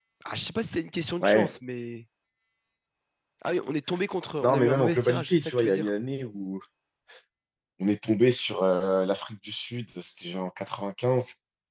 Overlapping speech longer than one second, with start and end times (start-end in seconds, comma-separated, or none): 4.4-5.9